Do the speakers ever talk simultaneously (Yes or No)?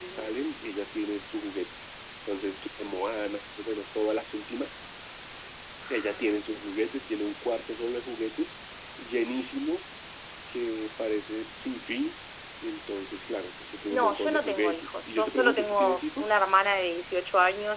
Yes